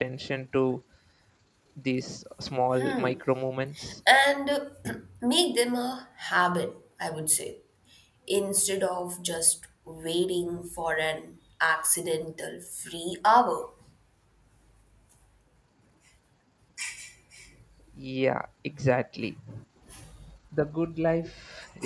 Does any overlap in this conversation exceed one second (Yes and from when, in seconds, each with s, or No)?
No